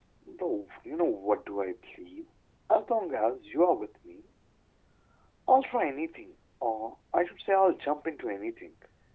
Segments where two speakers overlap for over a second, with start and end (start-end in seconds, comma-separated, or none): none